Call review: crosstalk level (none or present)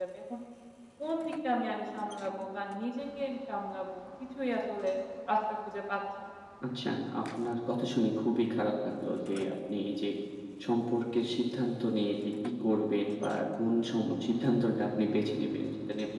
none